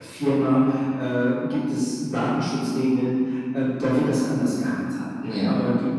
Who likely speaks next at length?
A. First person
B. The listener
A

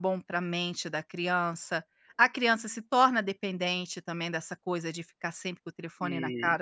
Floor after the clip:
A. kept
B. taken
B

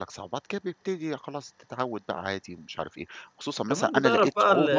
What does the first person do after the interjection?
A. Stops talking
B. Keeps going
A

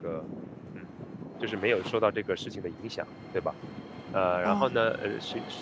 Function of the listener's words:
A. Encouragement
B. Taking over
A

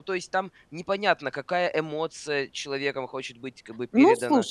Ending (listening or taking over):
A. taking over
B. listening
A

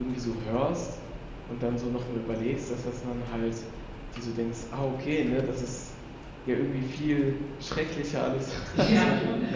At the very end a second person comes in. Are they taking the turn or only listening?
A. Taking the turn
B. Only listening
A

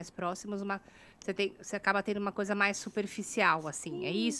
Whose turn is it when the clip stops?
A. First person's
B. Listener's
B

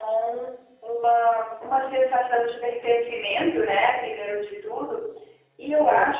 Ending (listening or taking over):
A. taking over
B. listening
B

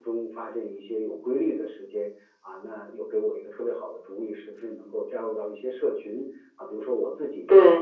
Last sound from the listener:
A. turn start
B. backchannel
B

